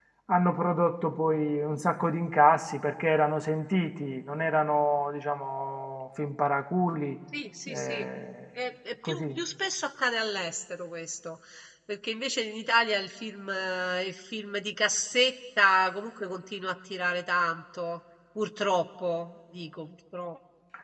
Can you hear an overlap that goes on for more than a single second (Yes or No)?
No